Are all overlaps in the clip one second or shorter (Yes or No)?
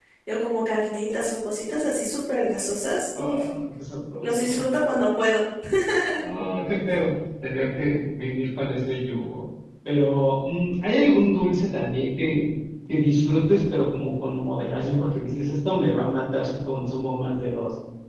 Yes